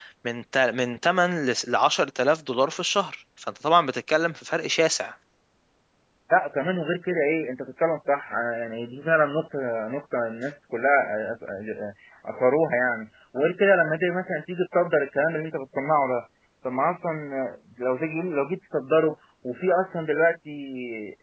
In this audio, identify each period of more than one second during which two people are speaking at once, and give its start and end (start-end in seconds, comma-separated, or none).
none